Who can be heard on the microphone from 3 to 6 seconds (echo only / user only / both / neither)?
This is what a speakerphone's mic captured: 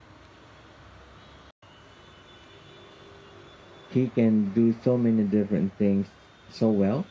user only